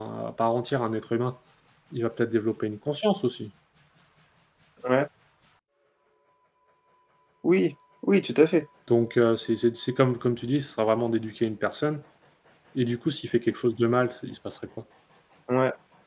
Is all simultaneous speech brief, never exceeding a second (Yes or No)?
Yes